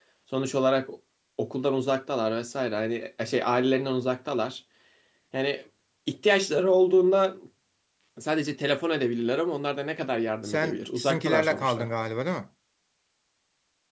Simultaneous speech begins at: 10.4 s

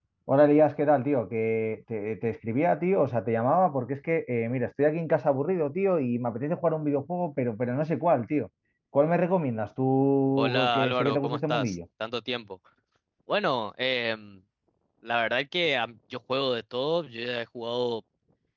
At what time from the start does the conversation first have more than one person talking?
10.4 s

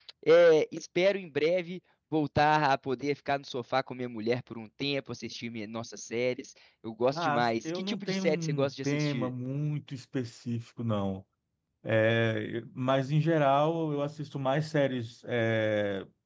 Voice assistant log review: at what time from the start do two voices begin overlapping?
7.1 s

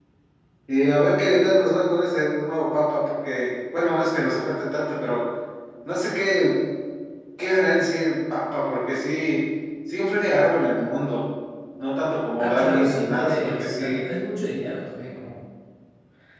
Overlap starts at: 12.4 s

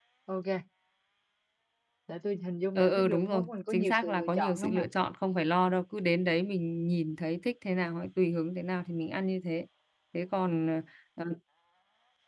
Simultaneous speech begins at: 2.8 s

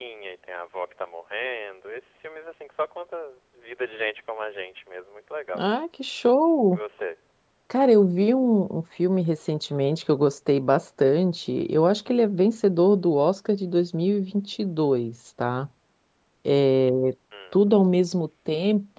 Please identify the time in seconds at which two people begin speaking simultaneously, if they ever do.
none

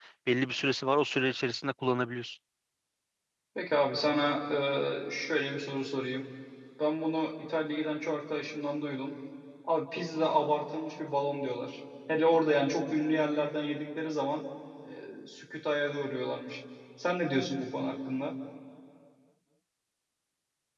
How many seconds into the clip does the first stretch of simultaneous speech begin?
none

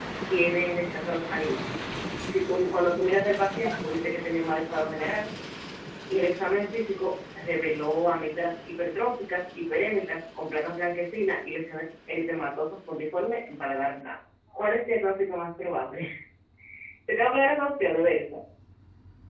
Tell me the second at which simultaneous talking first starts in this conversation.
none

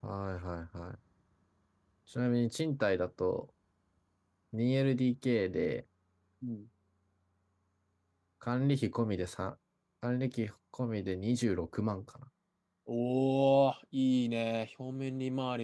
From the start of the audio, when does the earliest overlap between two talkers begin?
none

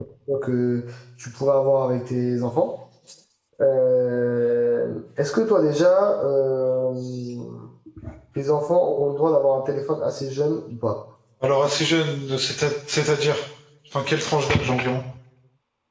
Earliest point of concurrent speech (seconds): none

